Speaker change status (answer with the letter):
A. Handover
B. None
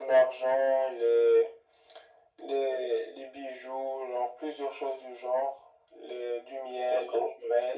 A